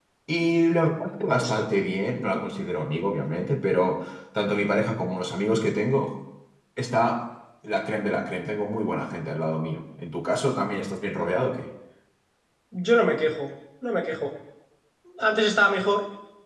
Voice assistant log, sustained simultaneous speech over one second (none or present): none